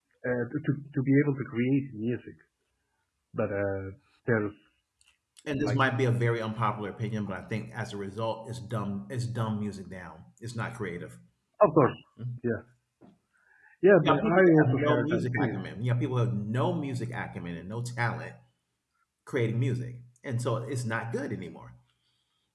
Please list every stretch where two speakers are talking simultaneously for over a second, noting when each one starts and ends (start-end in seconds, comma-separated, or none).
14.1-15.6